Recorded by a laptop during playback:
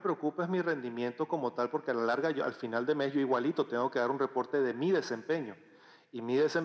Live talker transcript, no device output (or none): none